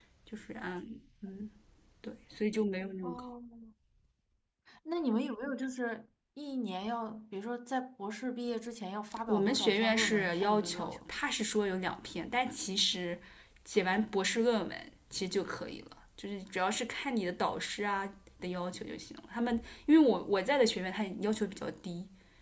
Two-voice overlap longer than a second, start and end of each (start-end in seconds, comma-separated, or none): 9.3-11.0